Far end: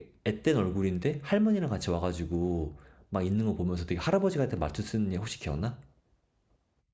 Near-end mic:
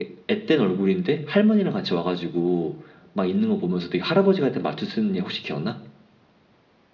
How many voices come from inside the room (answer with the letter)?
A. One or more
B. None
B